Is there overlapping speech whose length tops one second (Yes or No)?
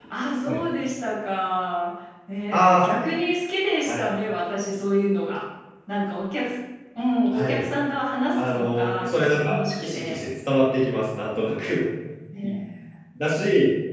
Yes